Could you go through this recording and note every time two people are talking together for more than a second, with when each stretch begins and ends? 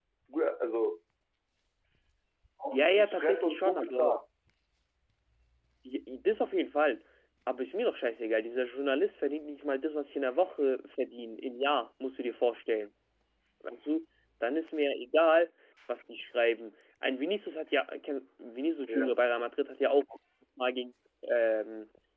2.7-4.2

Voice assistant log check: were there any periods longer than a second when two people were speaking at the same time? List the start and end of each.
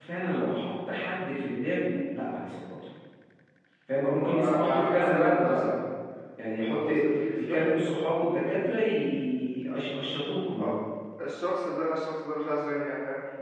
4.0-5.7

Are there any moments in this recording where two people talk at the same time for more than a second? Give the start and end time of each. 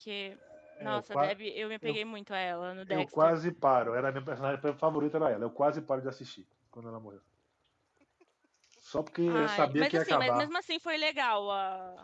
9.3-10.5

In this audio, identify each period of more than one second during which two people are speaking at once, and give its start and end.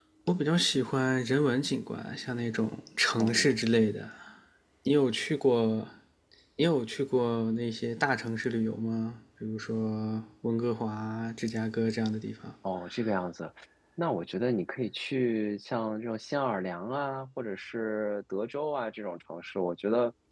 none

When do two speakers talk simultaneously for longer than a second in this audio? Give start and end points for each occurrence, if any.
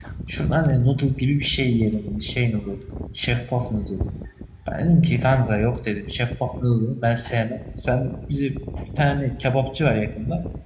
none

